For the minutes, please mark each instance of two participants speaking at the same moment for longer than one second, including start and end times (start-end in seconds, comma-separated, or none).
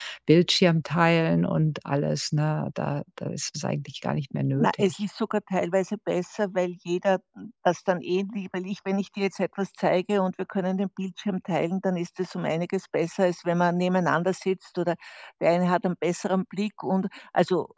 none